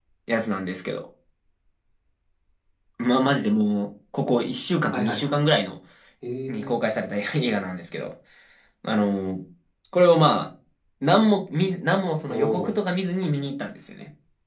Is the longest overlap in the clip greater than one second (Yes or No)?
No